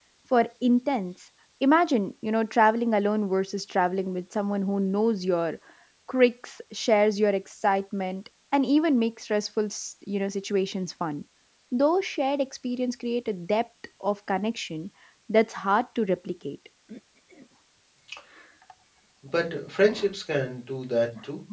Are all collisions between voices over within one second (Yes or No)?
Yes